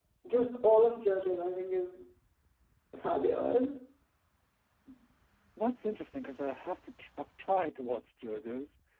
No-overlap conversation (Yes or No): Yes